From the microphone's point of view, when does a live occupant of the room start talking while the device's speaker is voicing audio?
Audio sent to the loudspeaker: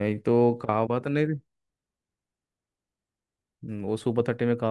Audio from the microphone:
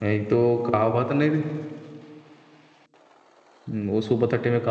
none

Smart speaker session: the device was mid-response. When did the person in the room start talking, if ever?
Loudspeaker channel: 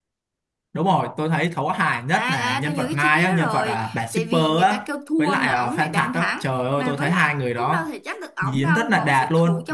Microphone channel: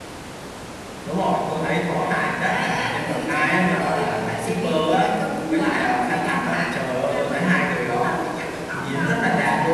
none

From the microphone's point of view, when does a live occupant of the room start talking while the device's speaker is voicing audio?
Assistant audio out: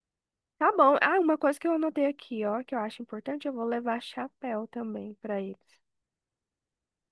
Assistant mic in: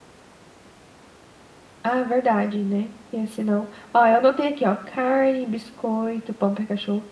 1.8 s

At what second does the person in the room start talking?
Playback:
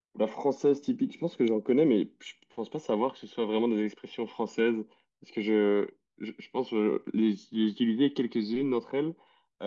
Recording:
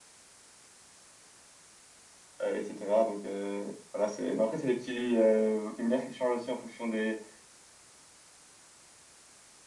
2.4 s

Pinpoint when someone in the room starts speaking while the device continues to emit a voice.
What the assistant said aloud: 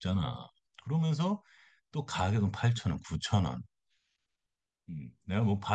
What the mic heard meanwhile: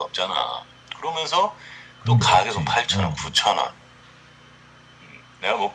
2.0 s

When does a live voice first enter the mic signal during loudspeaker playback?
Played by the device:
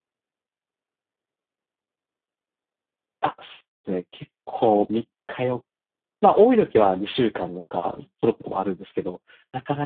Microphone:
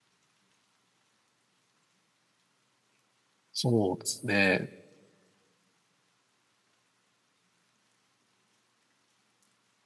3.5 s

